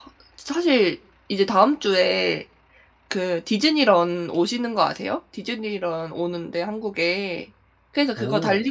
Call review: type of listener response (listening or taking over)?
listening